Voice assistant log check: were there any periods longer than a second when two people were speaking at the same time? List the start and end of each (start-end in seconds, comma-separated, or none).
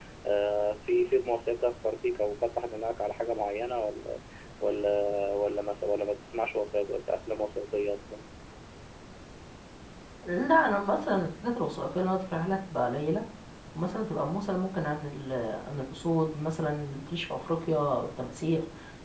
none